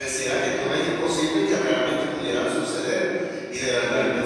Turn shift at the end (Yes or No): No